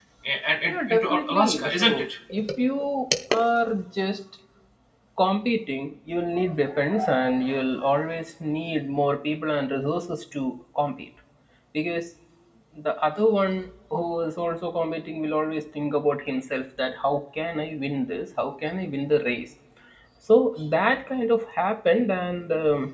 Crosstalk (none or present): present